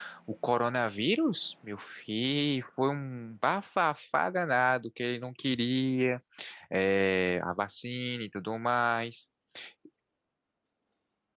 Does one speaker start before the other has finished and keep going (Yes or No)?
No